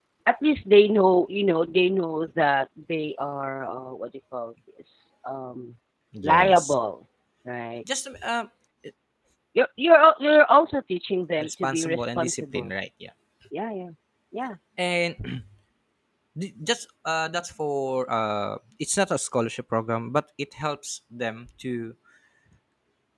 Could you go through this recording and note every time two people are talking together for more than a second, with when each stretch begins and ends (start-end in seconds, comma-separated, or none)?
11.4-12.7